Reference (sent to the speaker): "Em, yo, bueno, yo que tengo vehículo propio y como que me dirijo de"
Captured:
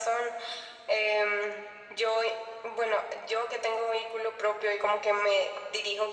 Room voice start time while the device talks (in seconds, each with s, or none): none